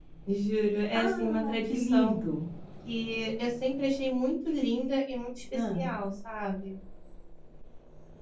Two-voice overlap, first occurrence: 0.9 s

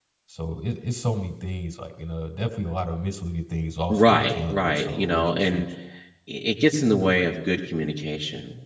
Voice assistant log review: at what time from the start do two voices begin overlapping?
3.9 s

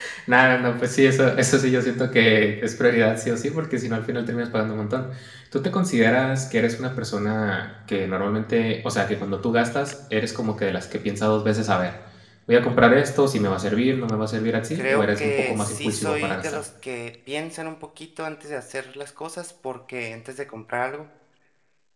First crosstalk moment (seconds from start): 14.8 s

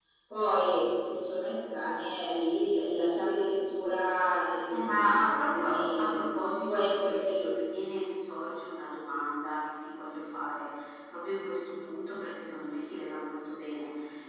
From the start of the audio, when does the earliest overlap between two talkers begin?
4.7 s

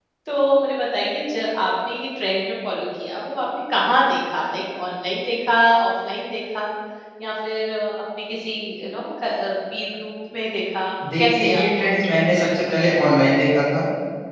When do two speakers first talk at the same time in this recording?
11.2 s

